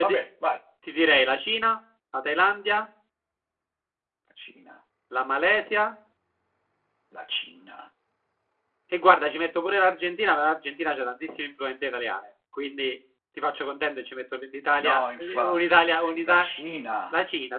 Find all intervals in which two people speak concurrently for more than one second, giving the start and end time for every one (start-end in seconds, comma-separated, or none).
14.8-16.5